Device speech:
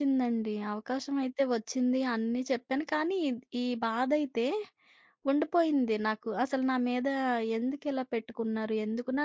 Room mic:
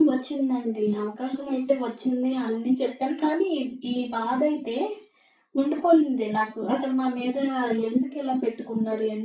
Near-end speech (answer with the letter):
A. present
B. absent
B